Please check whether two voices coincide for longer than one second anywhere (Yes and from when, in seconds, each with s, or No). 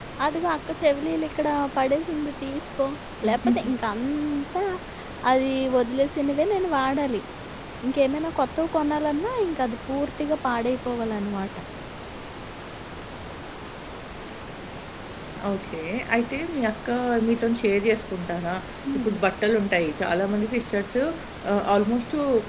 No